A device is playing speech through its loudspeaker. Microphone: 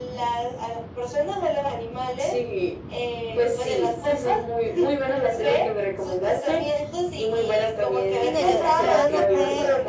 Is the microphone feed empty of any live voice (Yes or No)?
No